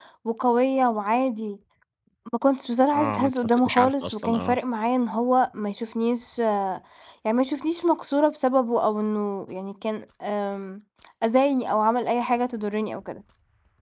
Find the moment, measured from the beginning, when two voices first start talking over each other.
2.9 s

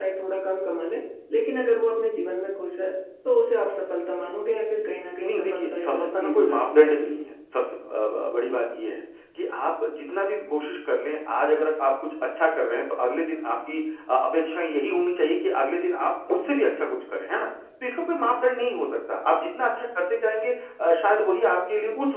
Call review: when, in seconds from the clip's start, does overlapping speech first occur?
5.2 s

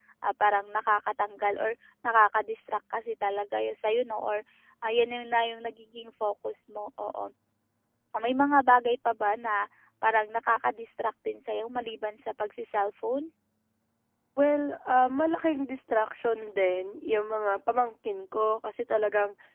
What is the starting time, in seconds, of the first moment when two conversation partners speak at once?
none

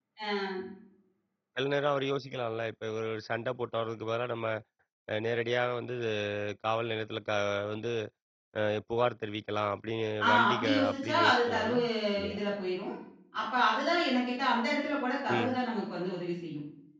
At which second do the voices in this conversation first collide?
10.3 s

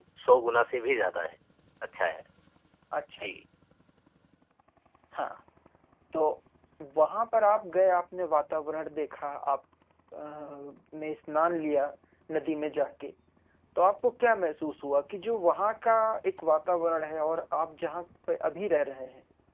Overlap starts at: none

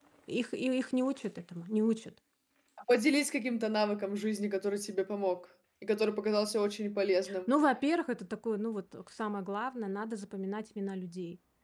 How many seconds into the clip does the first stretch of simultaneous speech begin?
none

